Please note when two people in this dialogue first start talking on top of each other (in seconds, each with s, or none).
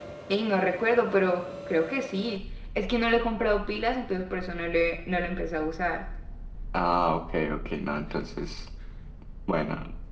none